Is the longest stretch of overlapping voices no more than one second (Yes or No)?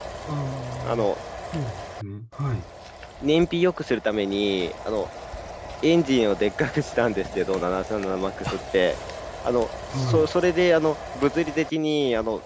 Yes